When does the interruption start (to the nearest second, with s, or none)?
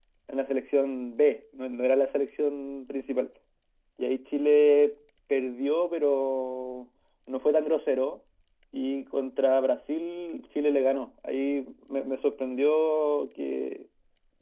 none